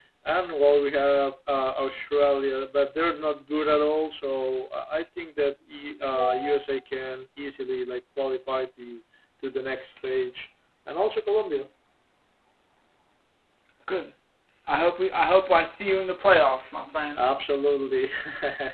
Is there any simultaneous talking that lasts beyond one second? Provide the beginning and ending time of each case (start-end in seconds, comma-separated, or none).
none